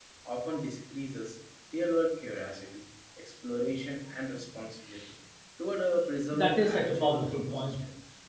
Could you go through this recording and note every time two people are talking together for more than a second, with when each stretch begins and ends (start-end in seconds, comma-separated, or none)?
6.3-7.7